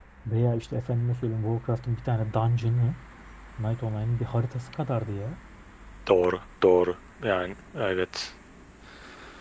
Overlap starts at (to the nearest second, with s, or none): none